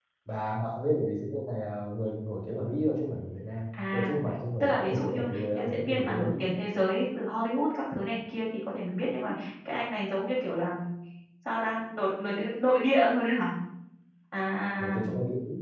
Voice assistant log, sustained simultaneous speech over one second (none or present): present